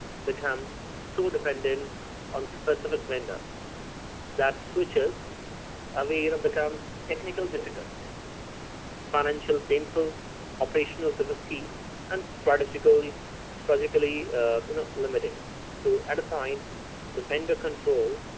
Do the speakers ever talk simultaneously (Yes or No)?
No